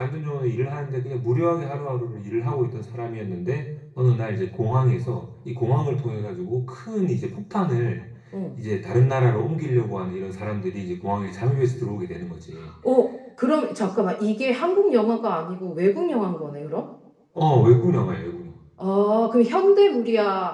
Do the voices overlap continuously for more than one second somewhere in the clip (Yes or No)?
No